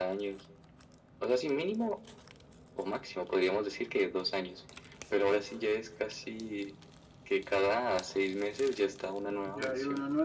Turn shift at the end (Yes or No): Yes